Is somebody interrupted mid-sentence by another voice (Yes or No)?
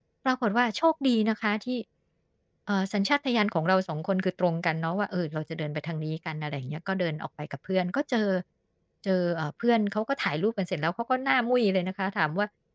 No